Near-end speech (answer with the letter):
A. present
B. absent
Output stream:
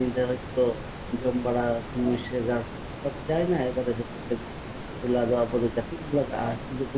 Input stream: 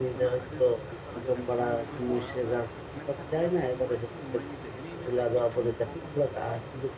A